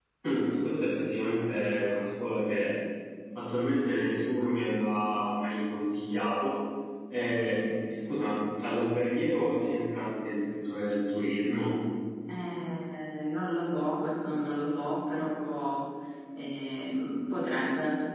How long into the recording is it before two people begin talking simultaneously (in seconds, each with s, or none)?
none